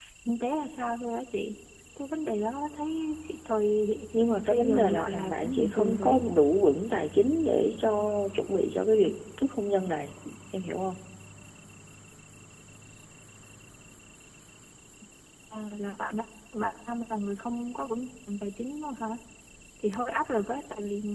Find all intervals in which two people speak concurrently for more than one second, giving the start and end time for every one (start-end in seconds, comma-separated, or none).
4.5-6.2